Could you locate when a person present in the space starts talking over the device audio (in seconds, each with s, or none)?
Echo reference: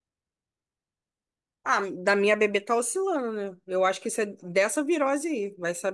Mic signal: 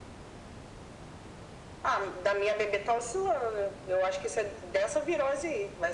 none